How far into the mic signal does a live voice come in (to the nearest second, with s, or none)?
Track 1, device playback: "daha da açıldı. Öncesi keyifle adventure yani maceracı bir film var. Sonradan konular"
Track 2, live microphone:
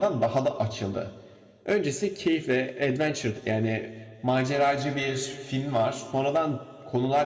none